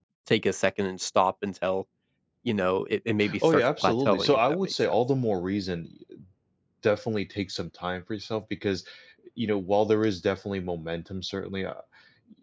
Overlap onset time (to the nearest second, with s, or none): 3 s